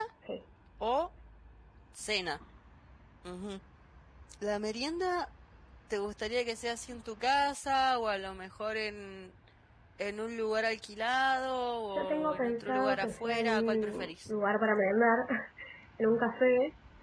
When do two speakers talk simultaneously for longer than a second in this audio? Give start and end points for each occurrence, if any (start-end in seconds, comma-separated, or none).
11.9-14.1